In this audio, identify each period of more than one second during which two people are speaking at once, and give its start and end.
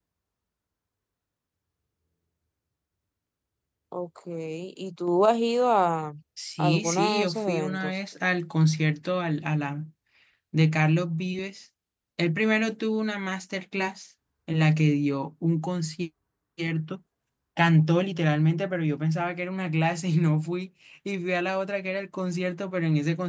6.6-7.9

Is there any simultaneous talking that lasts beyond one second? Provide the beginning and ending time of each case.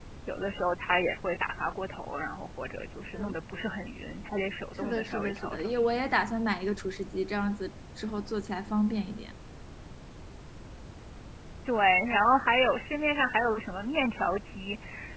4.8-6.0

